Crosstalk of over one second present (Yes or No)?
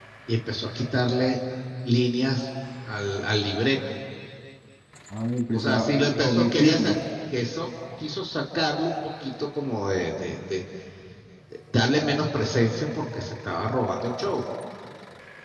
Yes